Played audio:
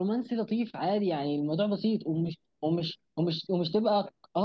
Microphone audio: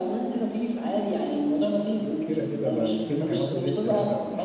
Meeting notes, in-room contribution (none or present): present